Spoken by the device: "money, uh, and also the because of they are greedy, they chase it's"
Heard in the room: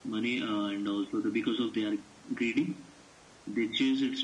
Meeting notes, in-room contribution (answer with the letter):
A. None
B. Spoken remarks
A